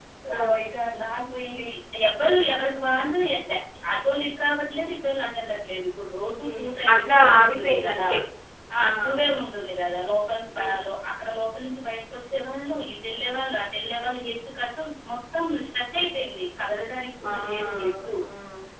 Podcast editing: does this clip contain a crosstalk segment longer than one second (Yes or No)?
Yes